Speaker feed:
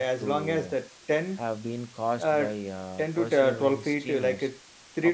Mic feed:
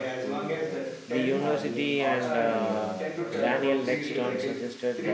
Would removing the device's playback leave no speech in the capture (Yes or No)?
No